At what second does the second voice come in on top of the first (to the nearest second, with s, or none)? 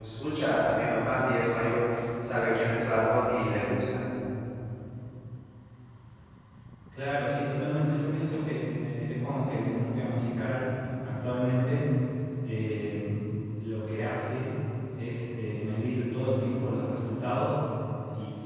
none